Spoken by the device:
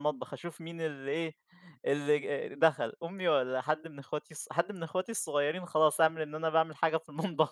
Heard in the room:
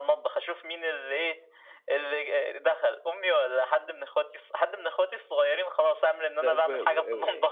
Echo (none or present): present